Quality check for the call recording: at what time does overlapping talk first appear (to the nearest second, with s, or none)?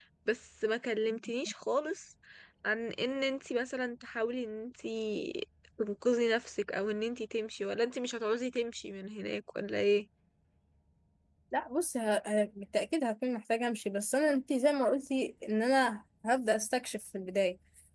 none